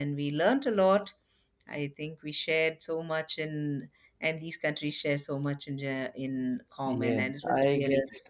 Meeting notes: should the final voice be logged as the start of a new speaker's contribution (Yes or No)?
Yes